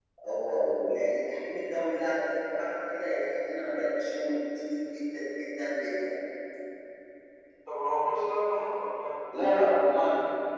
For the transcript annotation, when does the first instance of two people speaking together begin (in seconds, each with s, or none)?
none